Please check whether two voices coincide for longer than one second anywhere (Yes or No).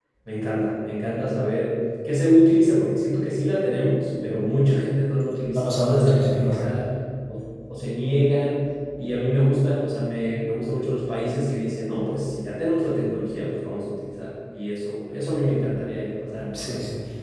Yes